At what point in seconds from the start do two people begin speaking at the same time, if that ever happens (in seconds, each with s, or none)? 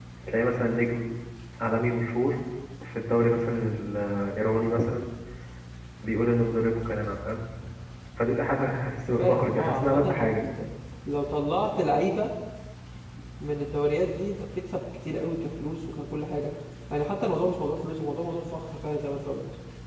9.2 s